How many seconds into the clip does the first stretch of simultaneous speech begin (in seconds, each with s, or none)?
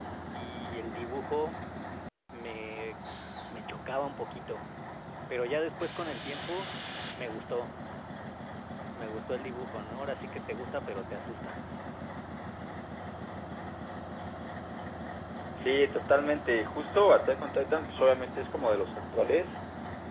none